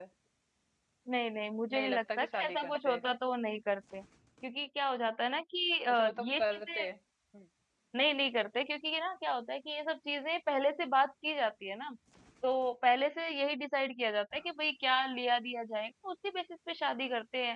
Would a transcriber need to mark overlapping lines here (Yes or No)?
Yes